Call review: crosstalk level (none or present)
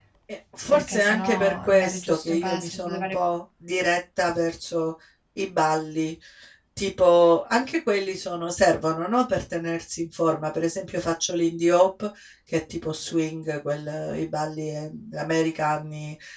present